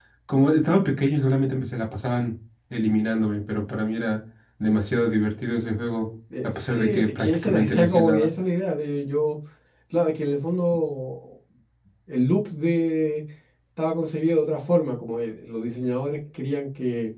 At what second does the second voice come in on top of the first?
6.3 s

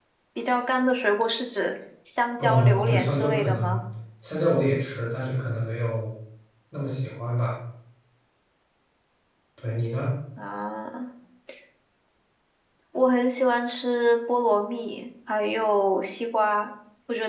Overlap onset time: 2.4 s

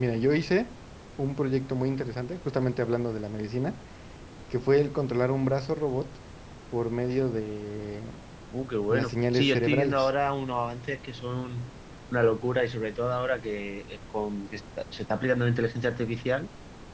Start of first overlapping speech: 8.9 s

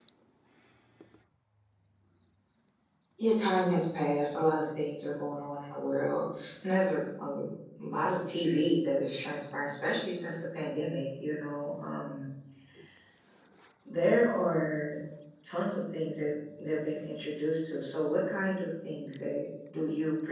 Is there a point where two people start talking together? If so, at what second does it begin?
none

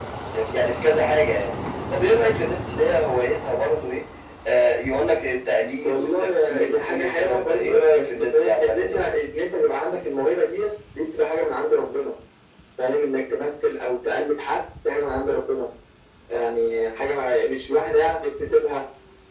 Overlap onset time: 5.8 s

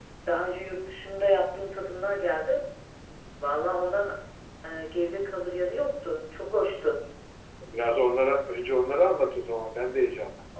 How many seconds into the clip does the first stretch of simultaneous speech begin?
none

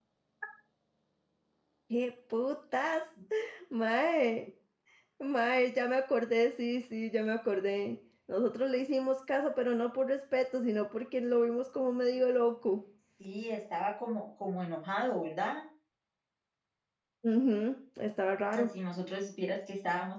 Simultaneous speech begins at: none

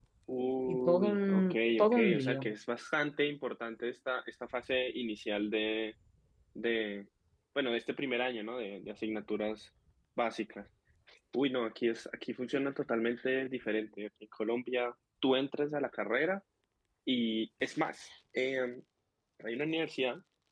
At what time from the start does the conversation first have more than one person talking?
0.7 s

